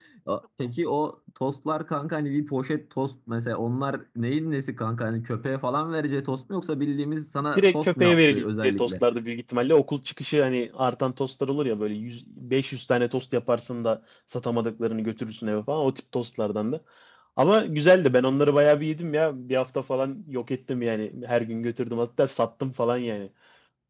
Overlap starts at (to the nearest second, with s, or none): 8 s